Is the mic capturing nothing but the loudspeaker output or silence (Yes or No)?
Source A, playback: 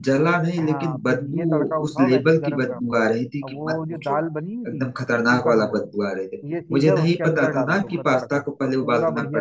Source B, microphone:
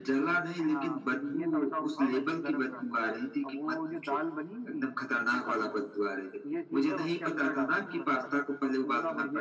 Yes